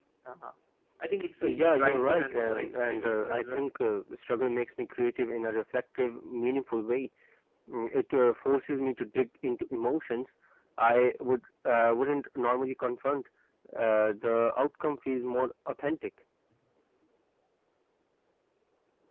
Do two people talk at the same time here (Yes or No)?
Yes